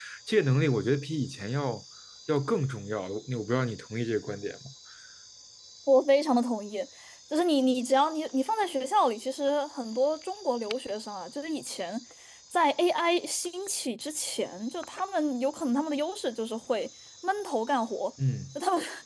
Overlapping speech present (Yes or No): No